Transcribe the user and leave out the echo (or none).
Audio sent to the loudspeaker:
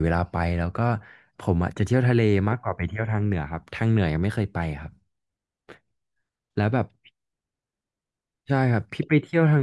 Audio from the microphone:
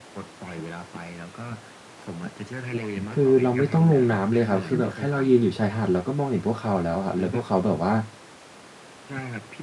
คือเราไม่ต้องลงน้ำเลยครับคือแบบแค่เรายืนอยู่ชายหาดเราก็มองเห็นพวกเขาแล้วครับแล้วพวกเขาแบบว่า